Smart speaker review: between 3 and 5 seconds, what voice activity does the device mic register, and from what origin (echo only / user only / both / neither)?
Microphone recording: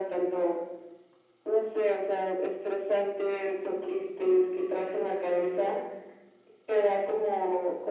echo only